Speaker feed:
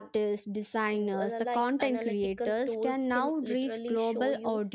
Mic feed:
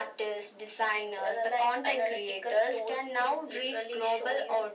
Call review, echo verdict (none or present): present